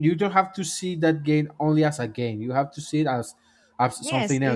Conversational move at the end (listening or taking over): taking over